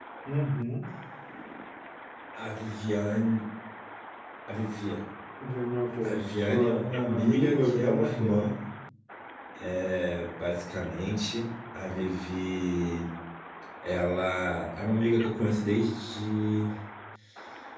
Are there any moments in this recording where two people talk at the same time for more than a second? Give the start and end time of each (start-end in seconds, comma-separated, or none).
6.0-8.4